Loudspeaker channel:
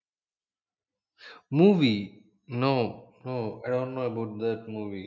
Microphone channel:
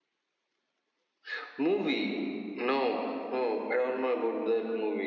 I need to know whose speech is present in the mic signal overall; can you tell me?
echo only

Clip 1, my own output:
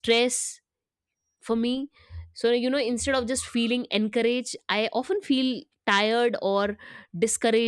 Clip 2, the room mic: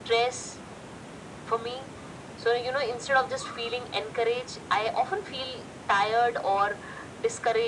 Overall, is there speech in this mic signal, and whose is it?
echo only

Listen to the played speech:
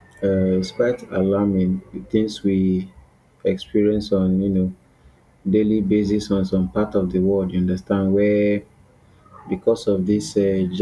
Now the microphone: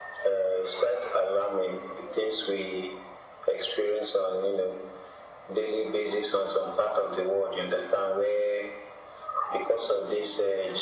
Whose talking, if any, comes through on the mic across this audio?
echo only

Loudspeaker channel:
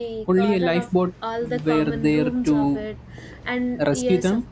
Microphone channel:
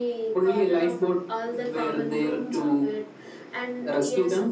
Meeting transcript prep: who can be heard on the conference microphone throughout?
echo only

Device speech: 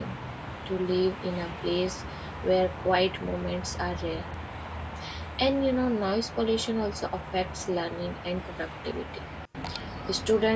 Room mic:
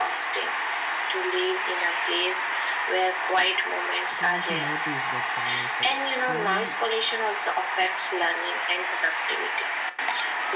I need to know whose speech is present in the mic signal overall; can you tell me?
both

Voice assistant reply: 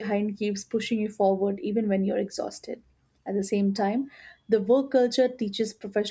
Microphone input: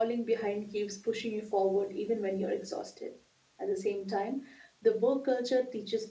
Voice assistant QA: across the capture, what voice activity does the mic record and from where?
echo only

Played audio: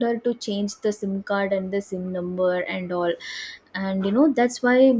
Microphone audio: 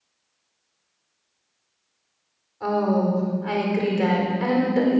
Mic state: user only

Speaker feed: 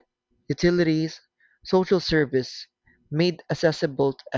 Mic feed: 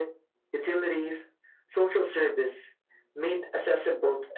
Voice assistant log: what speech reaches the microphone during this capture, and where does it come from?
echo only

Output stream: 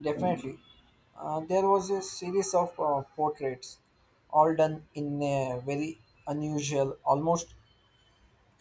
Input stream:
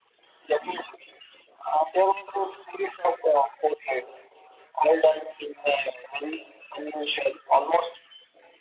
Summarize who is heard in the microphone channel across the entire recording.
echo only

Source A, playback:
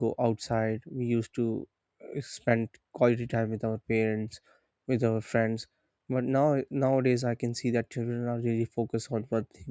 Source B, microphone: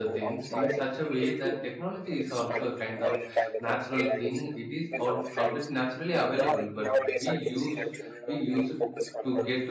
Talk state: both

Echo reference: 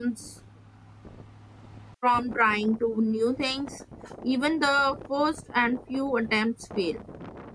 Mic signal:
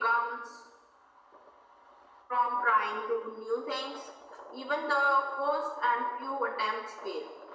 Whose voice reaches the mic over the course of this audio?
echo only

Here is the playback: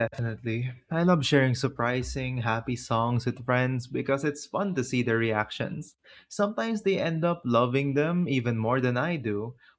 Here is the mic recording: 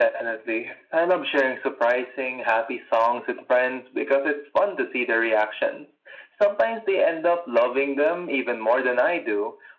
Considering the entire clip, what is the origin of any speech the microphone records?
echo only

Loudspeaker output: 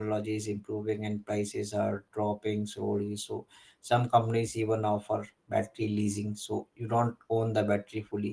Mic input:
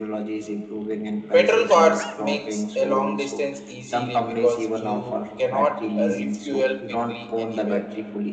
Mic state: both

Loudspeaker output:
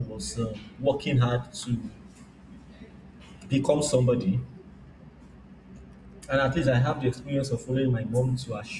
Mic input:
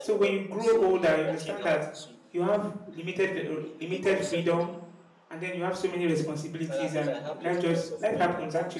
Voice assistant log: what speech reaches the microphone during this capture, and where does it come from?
both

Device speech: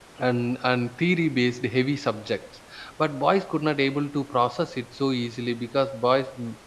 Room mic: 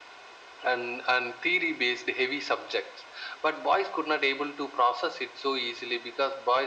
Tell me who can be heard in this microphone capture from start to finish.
echo only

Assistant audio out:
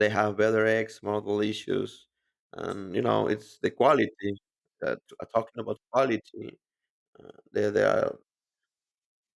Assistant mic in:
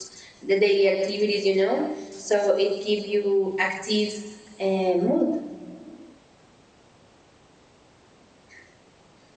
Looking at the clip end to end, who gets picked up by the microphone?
user only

